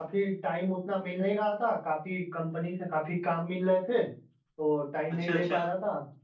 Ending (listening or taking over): listening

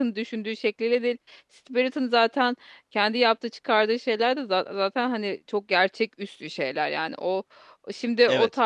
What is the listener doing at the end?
taking over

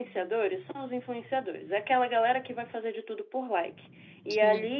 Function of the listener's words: listening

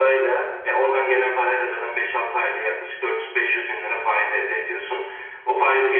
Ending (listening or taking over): listening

